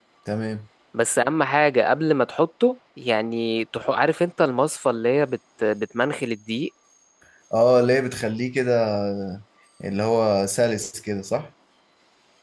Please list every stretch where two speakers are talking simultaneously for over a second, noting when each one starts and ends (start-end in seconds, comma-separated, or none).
none